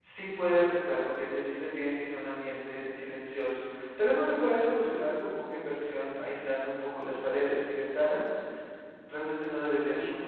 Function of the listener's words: taking over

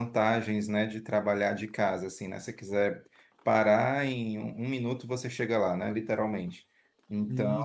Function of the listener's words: taking over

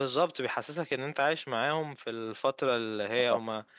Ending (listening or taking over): listening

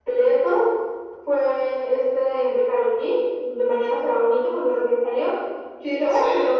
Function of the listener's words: listening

